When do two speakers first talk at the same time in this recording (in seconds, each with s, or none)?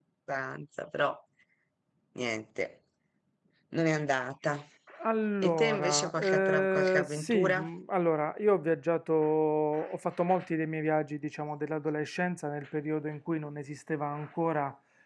5.4 s